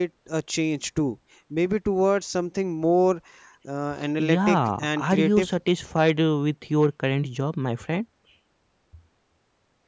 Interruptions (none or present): present